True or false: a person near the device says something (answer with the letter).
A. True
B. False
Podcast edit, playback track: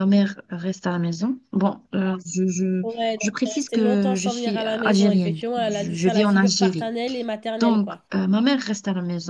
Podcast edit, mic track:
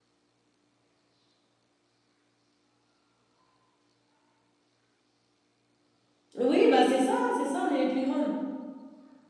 A